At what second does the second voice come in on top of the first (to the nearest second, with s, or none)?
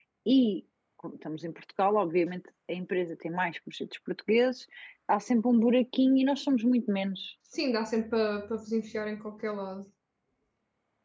none